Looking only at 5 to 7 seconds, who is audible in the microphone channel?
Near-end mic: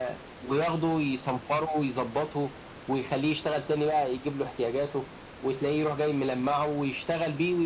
echo only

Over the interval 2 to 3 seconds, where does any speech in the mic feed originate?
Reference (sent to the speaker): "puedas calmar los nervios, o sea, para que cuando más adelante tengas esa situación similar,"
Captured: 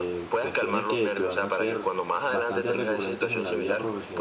both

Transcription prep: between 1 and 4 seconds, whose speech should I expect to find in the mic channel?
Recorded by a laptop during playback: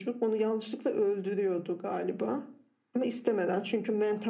echo only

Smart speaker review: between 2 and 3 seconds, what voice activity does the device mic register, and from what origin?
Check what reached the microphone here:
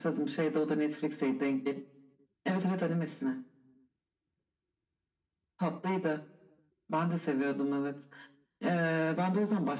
echo only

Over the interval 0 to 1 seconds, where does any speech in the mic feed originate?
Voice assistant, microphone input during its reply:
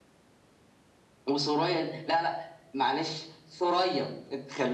neither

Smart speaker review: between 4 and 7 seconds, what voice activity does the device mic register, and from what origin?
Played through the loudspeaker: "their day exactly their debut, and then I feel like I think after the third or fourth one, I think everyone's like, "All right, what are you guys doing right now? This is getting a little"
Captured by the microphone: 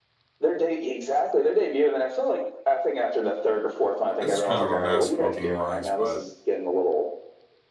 both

